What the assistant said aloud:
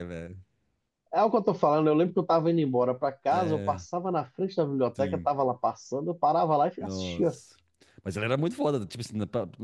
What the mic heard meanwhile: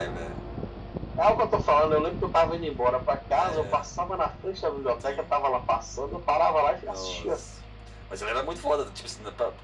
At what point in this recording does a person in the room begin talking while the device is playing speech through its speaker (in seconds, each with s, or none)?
none